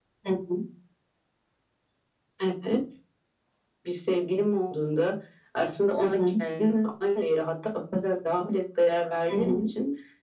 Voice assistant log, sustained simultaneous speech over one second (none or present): none